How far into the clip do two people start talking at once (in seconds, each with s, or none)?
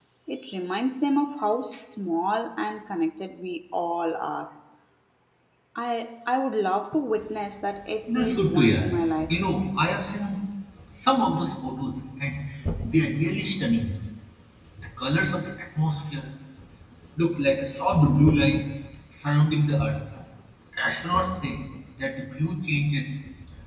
8.1 s